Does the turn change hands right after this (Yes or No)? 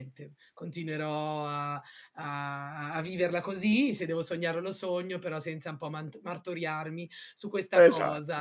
No